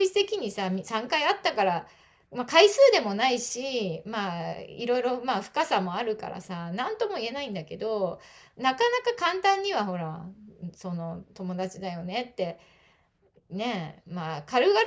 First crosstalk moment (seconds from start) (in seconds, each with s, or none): none